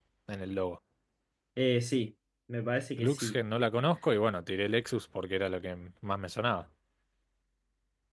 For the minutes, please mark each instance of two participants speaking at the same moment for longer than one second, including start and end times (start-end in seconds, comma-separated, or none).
none